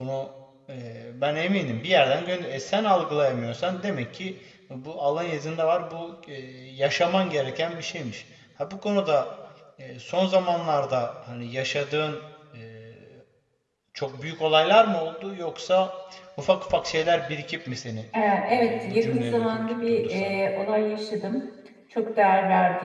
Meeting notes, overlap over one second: present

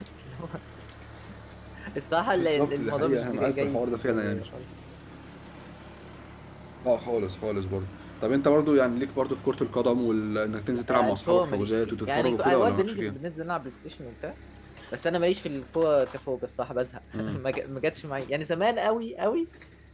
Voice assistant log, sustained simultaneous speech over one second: present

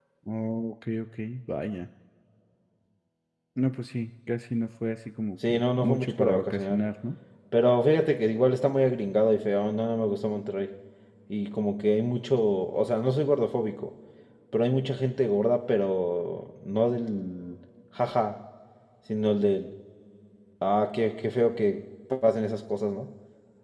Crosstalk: present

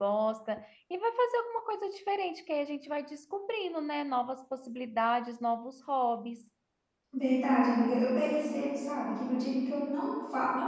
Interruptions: none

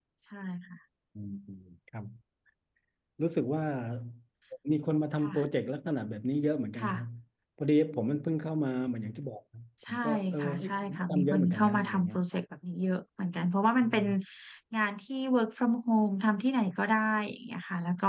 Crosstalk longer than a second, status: present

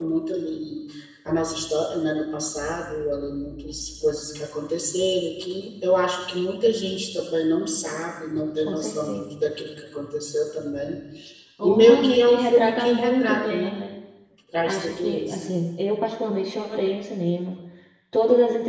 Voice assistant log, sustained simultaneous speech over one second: present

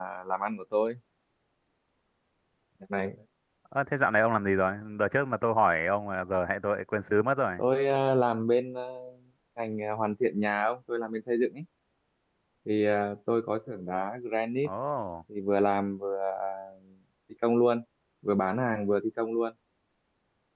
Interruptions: none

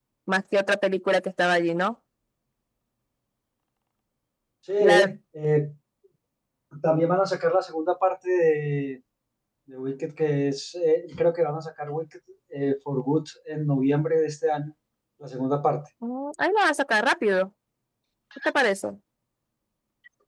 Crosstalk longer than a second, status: none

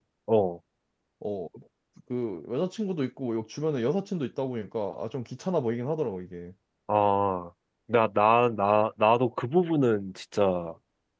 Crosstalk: none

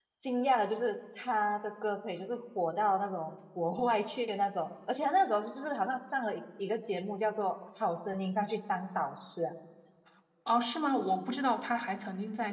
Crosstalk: none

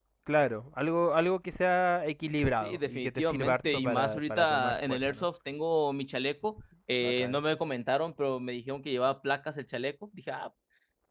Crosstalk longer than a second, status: present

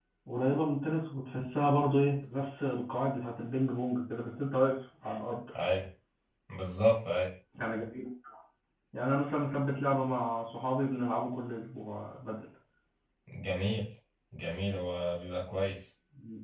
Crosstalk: none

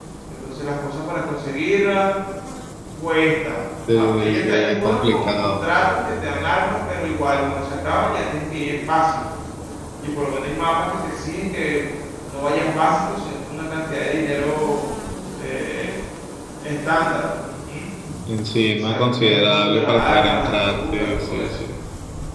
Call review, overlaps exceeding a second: present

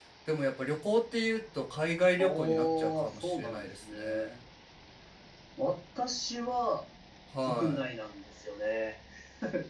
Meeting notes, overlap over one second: present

